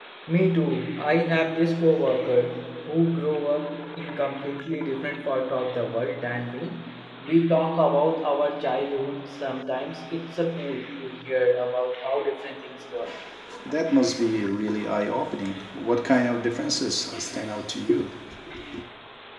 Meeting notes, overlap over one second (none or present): none